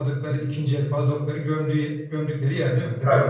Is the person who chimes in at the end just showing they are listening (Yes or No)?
No